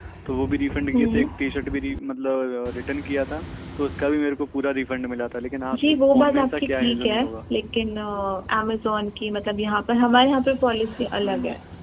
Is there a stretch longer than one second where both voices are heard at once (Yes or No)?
Yes